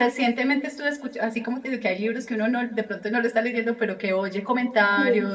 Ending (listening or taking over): listening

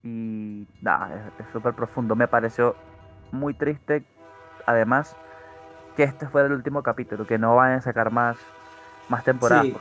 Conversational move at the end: taking over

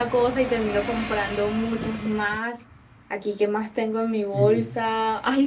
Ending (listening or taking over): listening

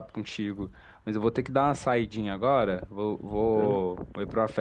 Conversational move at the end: listening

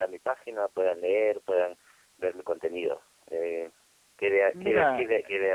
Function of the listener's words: listening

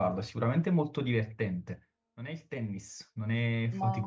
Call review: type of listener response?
listening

